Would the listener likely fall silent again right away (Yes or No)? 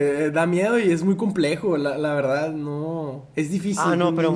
No